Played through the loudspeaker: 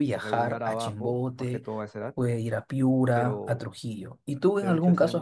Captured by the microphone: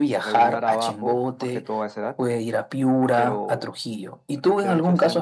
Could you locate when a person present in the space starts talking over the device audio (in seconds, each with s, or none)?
none